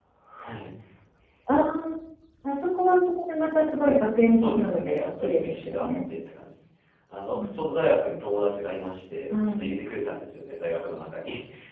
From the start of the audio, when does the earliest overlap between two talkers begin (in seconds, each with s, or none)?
4.3 s